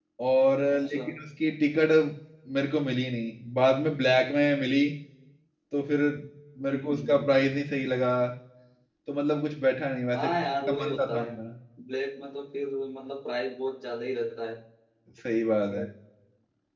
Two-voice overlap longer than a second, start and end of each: 10.2-11.4

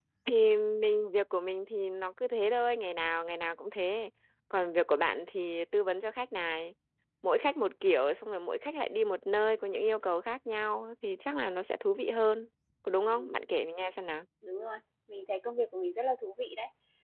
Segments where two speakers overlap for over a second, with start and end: none

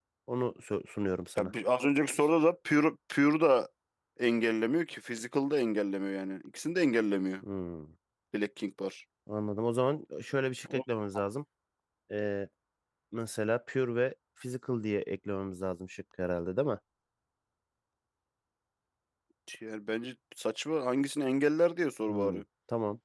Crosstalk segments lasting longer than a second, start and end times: none

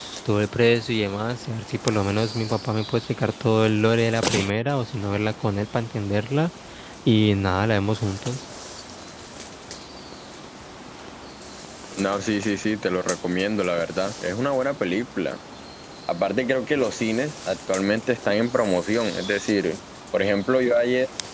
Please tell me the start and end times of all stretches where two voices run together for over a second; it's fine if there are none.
none

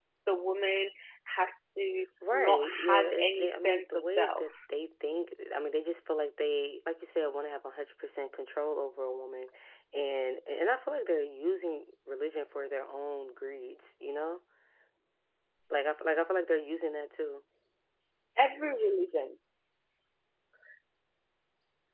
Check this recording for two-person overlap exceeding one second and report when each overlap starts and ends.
2.3-4.5

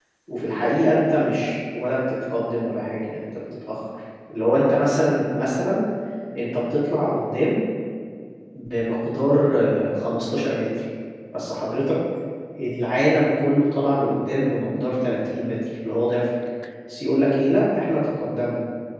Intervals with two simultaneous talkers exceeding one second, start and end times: none

